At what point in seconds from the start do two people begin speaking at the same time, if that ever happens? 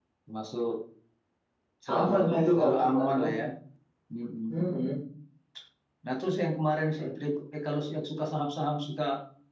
2 s

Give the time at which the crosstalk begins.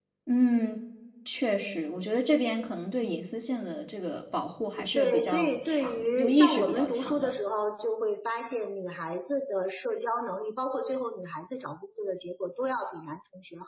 5 s

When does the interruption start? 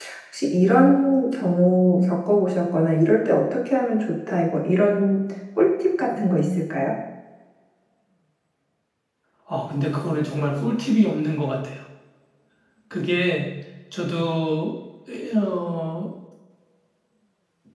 none

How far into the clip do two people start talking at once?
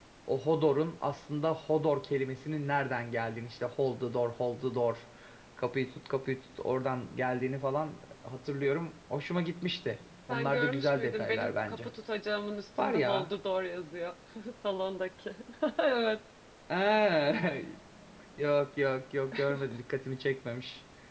10 s

